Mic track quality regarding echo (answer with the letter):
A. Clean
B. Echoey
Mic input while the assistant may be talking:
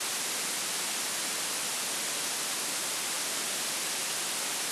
A